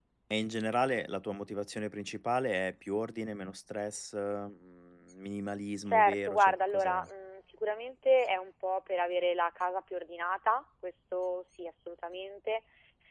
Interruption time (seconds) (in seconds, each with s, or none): 5.8 s